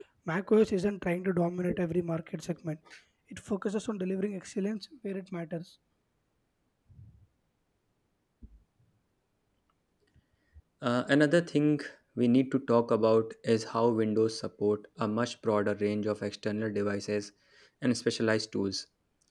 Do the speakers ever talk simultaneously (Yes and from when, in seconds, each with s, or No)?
No